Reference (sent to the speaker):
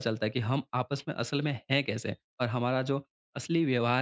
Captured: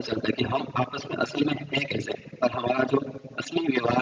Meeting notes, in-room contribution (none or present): none